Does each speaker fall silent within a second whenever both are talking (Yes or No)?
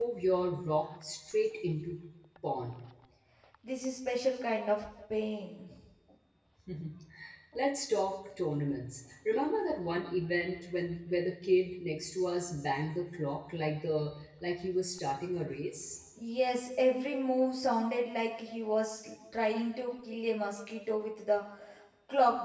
Yes